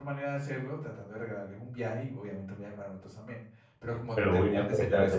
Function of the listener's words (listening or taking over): taking over